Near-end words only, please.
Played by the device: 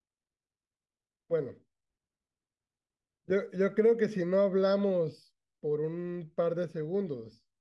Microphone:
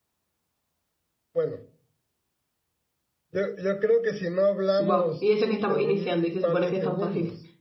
wow. Y eso que estamos iniciando y se supone que es tan fácil.

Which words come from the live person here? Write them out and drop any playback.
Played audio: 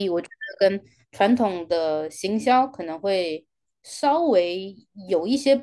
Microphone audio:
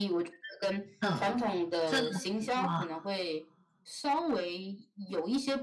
嗯，这种哇，

